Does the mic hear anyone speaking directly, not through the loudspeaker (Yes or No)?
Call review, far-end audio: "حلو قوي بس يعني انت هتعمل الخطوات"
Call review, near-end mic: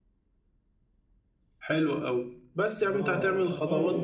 Yes